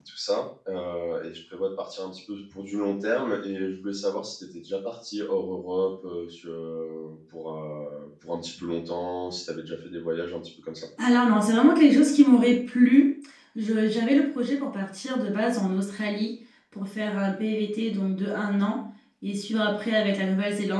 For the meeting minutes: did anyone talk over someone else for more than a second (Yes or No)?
No